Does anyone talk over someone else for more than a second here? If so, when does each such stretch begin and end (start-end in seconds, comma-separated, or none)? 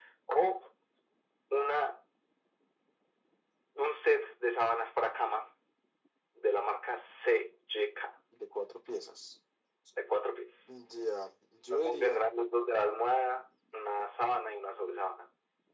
none